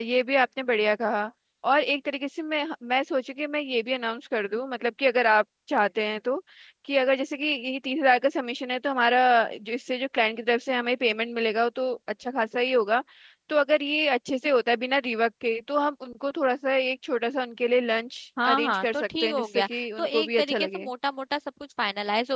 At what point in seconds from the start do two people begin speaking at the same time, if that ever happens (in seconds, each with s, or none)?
18.4 s